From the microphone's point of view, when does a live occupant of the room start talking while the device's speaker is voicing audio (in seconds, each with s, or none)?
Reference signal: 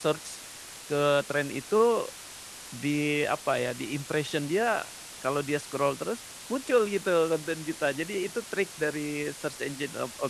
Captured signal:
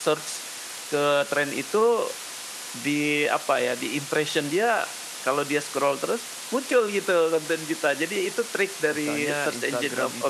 8.9 s